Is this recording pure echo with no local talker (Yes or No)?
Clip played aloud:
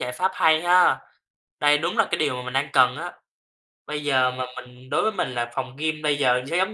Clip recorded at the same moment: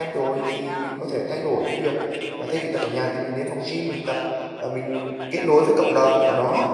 No